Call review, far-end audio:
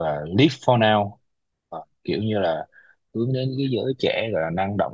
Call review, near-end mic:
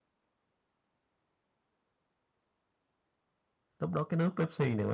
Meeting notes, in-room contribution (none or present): present